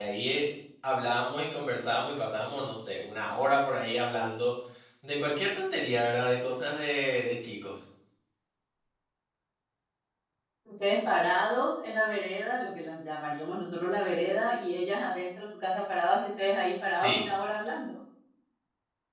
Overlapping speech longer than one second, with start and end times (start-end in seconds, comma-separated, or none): none